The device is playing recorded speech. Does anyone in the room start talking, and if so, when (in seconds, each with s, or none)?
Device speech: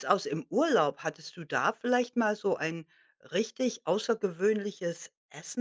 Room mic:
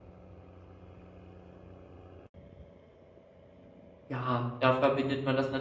4.1 s